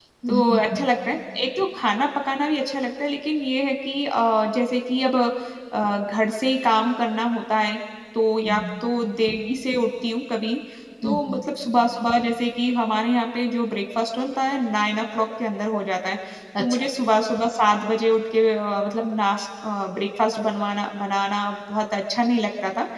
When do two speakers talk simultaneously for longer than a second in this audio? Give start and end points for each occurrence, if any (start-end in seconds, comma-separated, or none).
none